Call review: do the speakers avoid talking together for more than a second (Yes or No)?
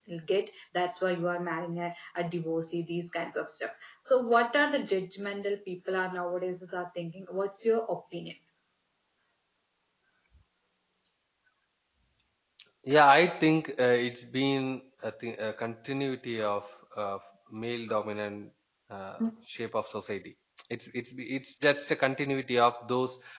Yes